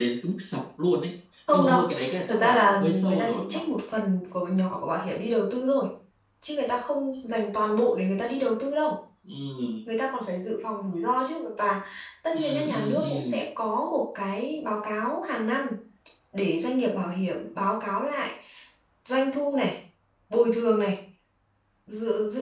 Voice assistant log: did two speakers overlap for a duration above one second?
Yes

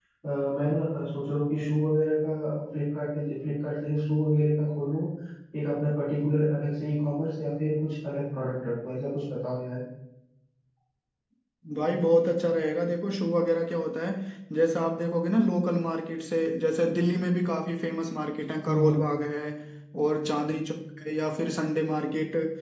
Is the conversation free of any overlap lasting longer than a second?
Yes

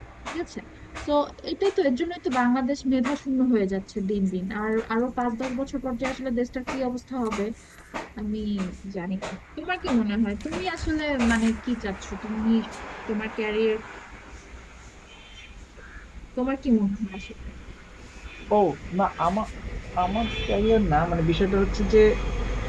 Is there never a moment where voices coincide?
Yes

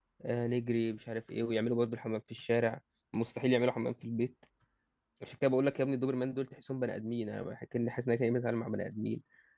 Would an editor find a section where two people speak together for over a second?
No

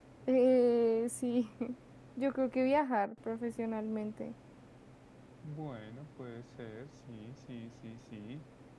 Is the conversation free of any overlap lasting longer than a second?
Yes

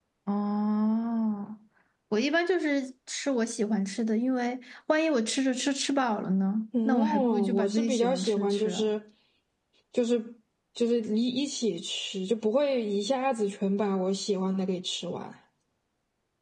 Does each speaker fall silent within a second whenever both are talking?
No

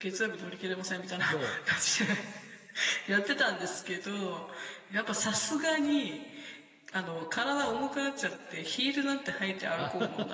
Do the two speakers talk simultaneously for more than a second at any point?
No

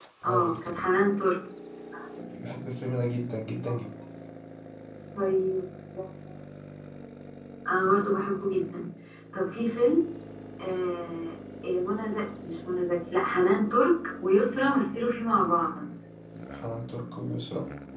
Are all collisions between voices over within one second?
Yes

